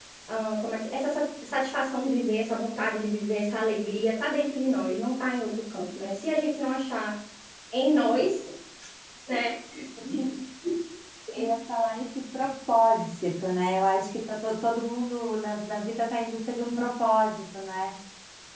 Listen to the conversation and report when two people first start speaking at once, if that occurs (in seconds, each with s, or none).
none